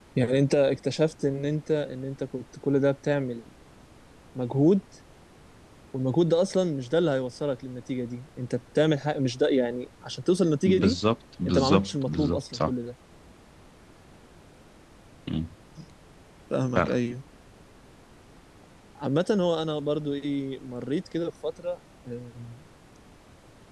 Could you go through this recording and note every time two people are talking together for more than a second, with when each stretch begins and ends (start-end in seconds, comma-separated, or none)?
11.4-12.7